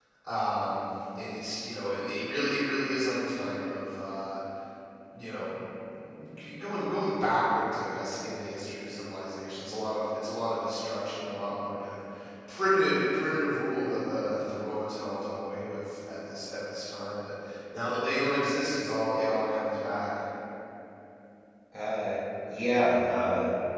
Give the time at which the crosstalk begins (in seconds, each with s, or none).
none